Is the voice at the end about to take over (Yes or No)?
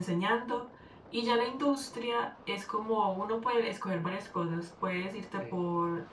No